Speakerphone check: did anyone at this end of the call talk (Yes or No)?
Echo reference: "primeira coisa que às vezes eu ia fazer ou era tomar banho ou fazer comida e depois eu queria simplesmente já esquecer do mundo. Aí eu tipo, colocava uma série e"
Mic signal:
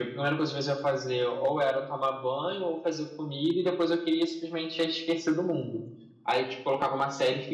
No